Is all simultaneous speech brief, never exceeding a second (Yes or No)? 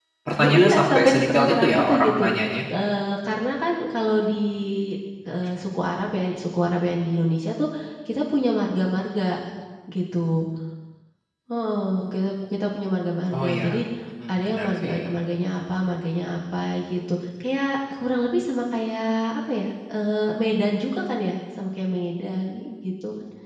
No